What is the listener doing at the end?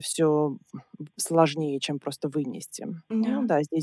listening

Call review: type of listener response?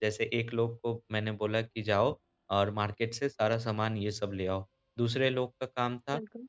listening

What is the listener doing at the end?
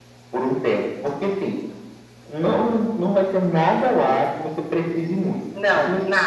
listening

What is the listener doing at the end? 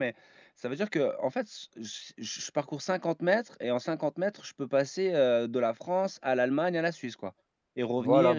taking over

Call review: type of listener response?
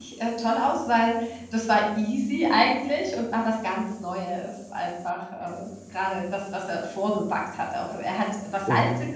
listening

